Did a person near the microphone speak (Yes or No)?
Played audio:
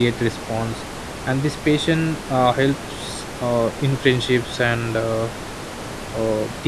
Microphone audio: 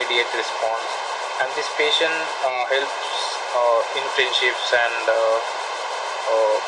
No